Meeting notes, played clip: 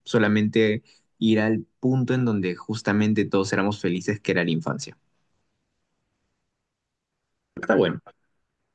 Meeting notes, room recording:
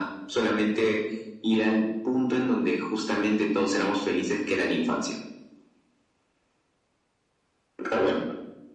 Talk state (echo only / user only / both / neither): echo only